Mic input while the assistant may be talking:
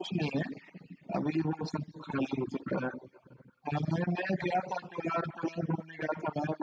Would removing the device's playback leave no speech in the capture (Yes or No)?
Yes